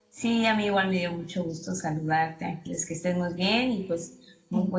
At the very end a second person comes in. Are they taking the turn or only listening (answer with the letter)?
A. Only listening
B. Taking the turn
A